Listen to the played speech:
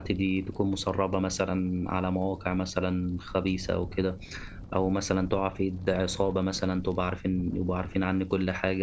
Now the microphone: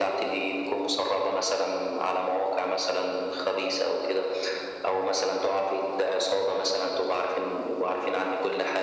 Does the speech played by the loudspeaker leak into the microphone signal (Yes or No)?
Yes